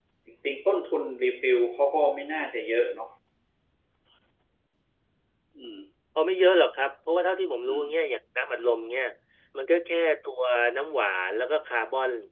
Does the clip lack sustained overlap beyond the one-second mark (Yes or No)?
Yes